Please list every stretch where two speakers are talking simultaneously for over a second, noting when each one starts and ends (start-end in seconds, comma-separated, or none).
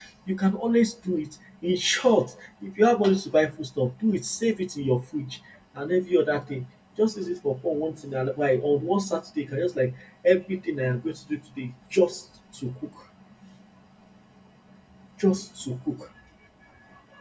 none